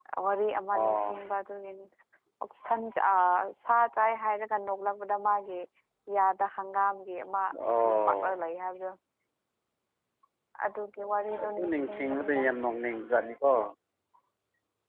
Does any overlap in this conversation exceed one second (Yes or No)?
Yes